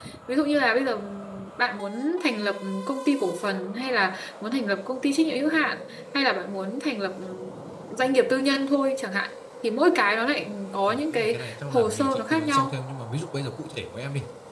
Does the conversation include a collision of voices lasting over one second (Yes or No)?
Yes